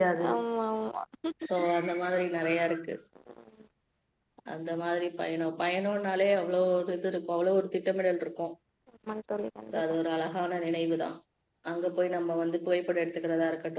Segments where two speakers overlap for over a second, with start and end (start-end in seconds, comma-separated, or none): none